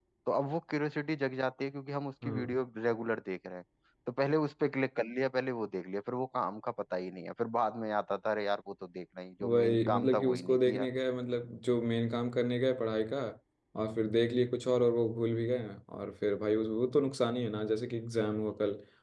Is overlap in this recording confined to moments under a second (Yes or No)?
No